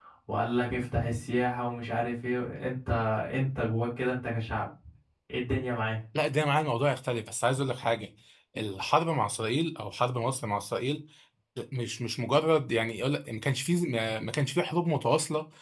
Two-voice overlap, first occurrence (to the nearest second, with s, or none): none